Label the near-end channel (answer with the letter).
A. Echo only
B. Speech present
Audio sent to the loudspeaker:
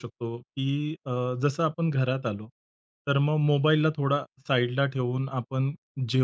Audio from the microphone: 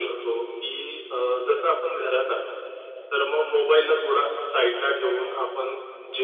A